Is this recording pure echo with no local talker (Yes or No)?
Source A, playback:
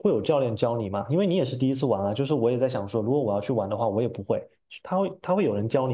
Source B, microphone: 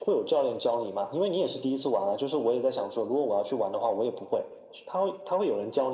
Yes